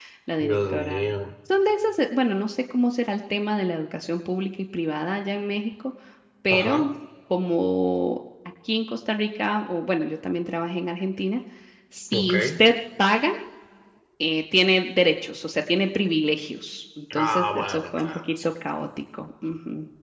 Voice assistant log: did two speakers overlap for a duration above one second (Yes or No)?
Yes